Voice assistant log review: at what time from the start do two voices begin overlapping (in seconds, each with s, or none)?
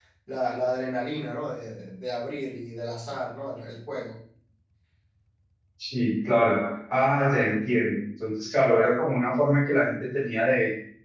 none